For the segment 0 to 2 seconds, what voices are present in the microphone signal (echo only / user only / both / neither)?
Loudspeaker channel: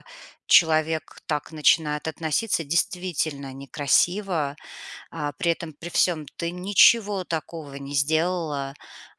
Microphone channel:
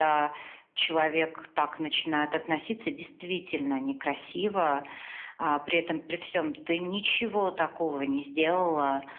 echo only